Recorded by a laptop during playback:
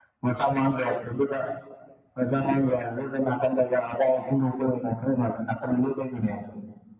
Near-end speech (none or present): none